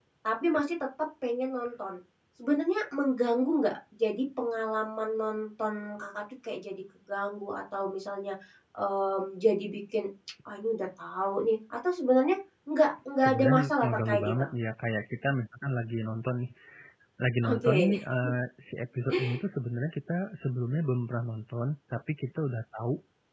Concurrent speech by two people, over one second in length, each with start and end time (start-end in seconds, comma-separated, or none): 13.2-14.5